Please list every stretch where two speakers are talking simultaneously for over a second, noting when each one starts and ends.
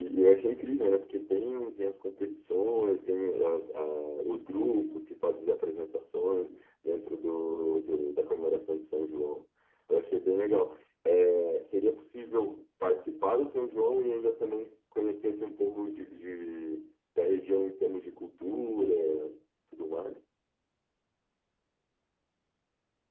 none

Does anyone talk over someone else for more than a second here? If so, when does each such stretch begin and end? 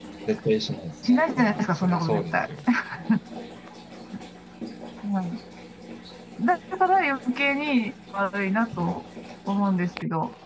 1.0-2.4

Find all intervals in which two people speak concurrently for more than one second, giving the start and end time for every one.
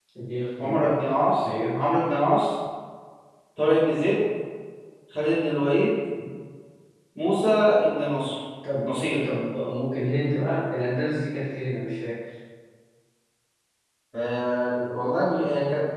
none

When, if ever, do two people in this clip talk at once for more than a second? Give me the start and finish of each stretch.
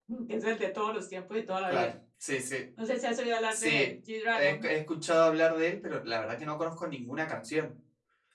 none

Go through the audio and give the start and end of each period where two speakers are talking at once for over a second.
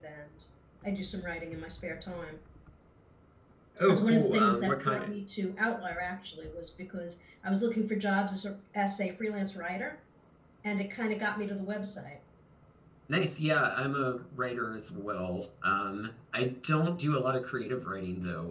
3.9-5.1

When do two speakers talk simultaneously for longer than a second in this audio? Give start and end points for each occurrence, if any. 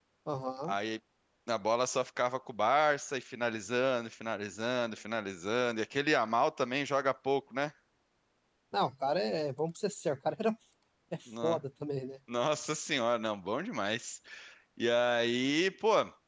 none

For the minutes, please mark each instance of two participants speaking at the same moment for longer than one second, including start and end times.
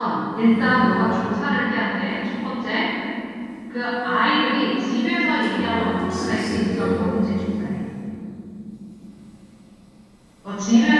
5.5-6.9

